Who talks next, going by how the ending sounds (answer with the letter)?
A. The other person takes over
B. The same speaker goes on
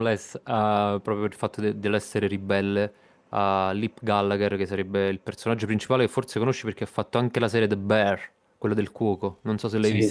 A